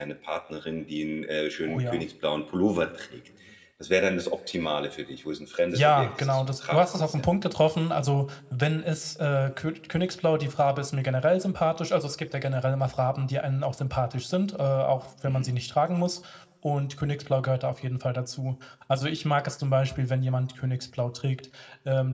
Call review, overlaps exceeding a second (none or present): present